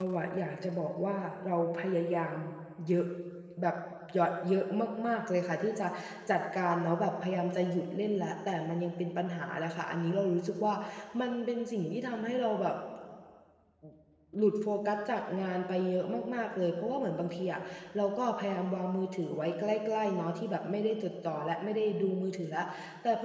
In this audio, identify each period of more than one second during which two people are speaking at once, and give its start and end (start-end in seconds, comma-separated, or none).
none